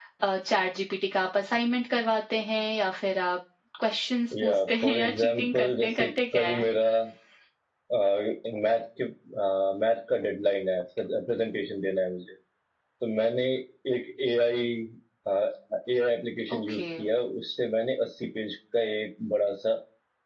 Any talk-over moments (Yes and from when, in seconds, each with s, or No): Yes, from 4.4 s